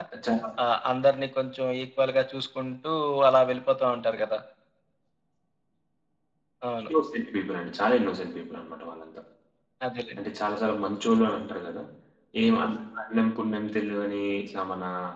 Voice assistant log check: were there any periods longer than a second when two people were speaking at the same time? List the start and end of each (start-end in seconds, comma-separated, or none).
none